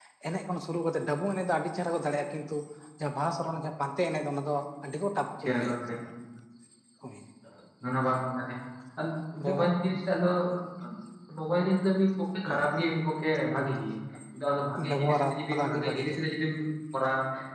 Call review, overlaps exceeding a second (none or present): present